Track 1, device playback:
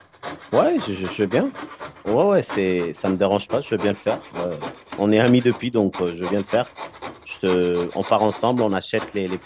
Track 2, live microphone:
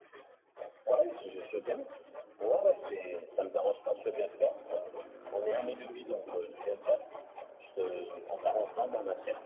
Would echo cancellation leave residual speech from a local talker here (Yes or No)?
No